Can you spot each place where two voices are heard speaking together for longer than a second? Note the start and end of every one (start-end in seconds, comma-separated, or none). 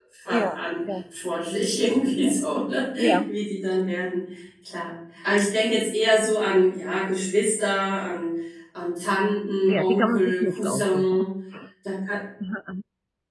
9.7-11.3